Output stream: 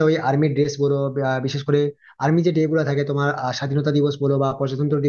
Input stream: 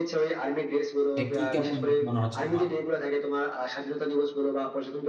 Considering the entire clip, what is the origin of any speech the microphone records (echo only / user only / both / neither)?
both